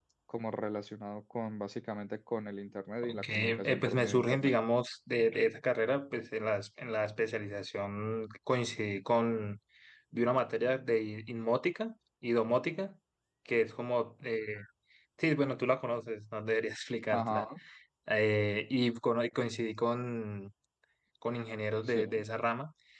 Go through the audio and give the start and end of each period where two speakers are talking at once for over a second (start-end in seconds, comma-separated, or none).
3.1-4.5